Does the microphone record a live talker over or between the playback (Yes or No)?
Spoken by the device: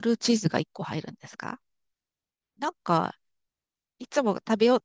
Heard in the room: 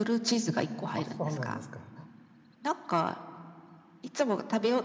Yes